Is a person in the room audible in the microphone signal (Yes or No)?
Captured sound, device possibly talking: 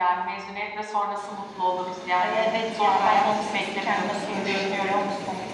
No